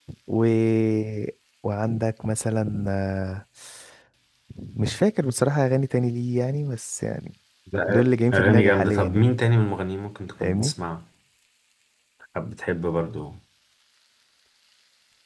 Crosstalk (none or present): present